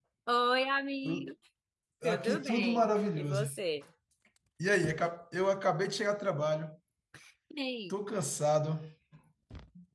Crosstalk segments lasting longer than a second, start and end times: 2.0-3.5

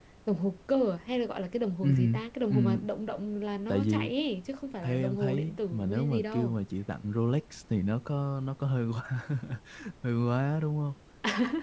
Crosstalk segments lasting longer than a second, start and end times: 4.8-6.5

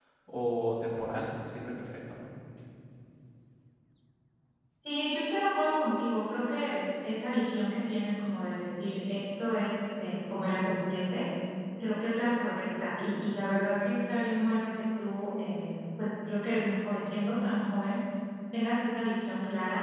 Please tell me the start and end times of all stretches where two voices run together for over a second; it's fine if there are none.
none

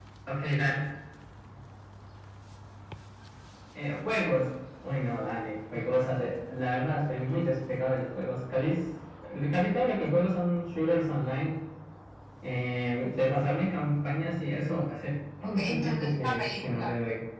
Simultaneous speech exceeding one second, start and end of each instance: 15.4-16.9

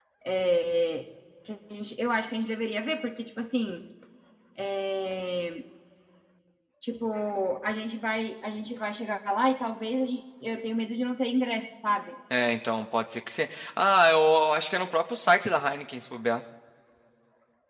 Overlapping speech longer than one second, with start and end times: none

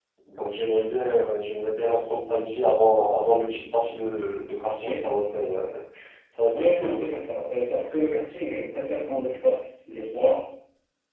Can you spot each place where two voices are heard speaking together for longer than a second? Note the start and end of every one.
none

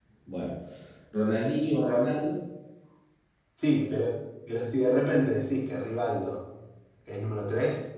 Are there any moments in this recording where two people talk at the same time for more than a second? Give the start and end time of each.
none

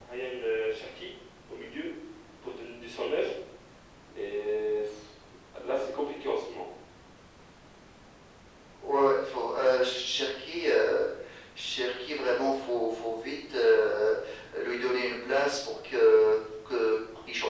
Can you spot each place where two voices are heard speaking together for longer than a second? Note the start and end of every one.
none

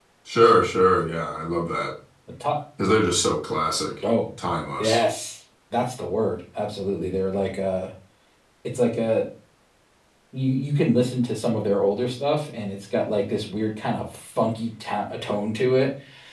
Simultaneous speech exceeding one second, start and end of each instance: none

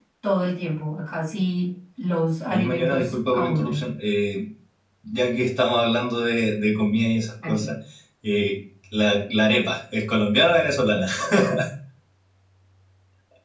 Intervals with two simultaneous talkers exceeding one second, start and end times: 2.5-3.8

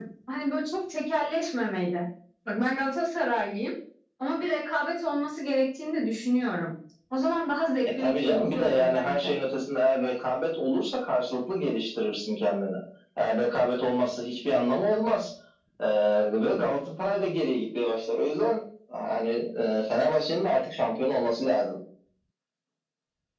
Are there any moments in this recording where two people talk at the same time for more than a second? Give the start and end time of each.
8.0-9.3

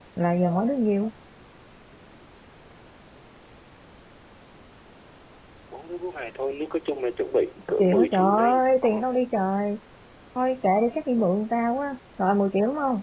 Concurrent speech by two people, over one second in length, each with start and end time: 7.7-8.9

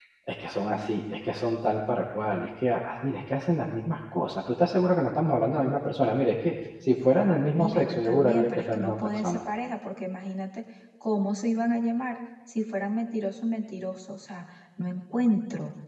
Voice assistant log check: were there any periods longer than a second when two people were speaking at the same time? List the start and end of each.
7.6-9.4

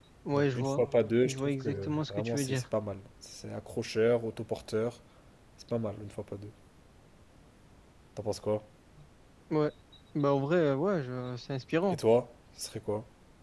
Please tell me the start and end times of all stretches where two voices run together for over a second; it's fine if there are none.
1.2-2.6

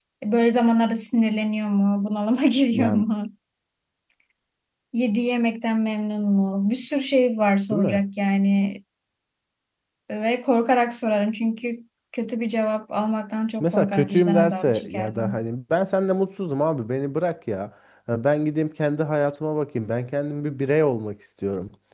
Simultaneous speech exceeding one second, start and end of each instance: 13.6-15.4

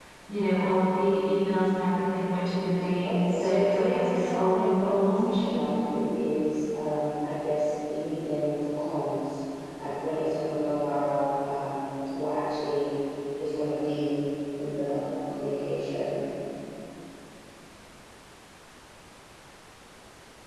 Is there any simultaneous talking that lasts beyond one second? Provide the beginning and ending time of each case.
3.0-5.4

